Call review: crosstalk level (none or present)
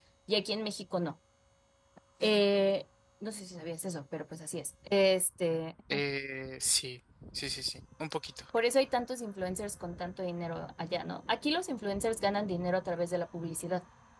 none